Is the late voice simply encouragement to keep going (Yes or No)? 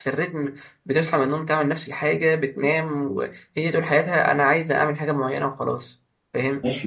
No